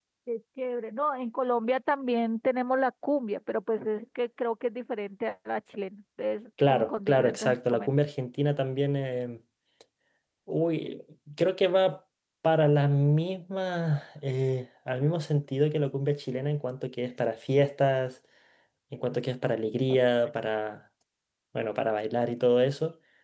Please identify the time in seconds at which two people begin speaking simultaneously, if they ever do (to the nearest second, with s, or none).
7 s